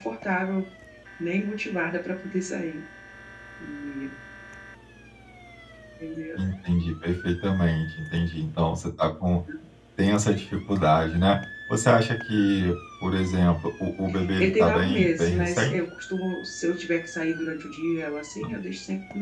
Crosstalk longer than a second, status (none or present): present